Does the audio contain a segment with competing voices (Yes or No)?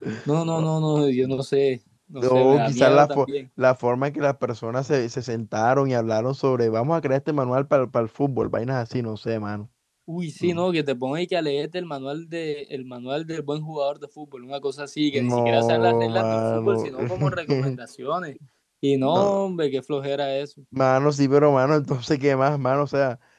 Yes